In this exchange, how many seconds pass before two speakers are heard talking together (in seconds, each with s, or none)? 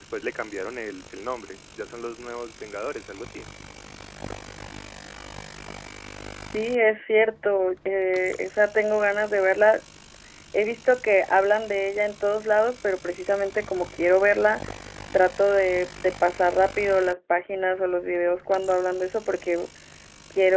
none